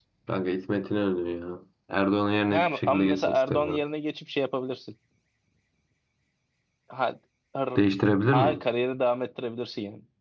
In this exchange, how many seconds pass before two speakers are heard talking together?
2.5 s

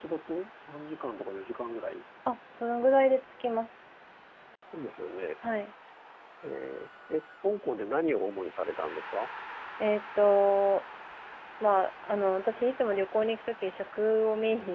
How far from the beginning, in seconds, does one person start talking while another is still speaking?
none

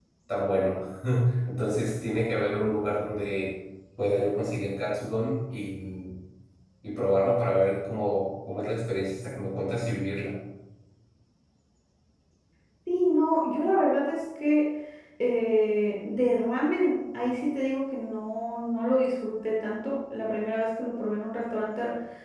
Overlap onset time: none

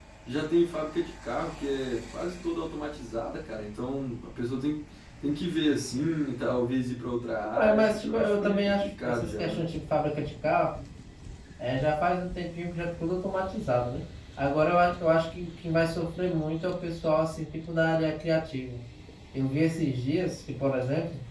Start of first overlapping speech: 7.6 s

